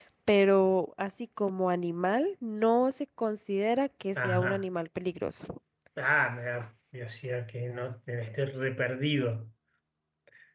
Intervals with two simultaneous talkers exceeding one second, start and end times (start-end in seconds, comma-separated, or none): none